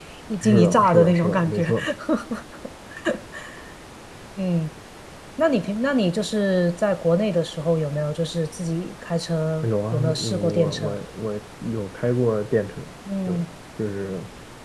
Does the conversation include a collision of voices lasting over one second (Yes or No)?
Yes